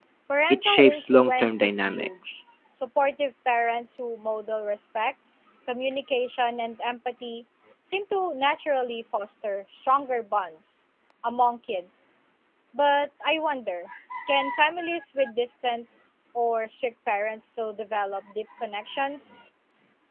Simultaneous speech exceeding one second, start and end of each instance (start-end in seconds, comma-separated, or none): 0.5-2.3